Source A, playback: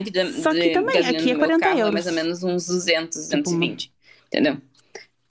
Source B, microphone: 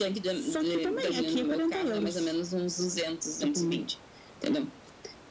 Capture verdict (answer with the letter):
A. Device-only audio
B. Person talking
A